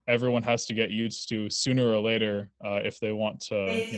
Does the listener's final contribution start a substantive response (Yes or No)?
Yes